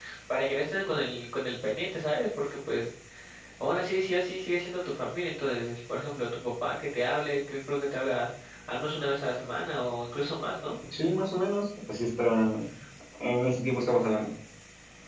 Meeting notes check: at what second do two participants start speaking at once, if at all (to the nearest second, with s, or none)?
none